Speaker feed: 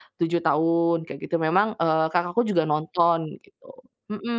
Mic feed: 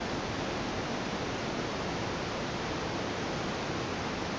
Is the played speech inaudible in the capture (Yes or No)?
Yes